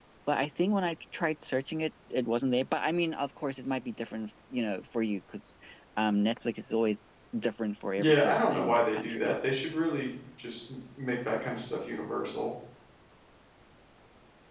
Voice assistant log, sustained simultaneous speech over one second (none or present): present